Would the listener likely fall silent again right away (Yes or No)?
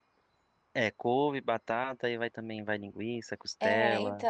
No